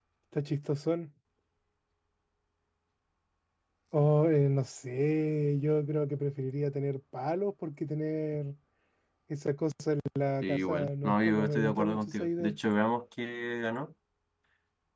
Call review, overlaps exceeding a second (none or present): present